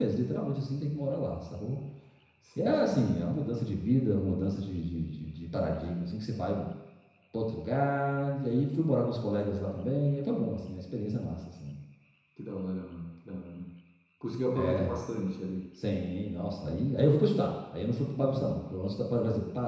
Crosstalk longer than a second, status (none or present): none